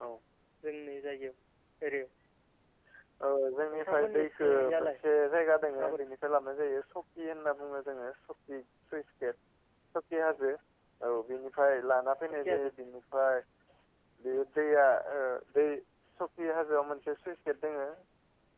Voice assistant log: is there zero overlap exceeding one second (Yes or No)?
No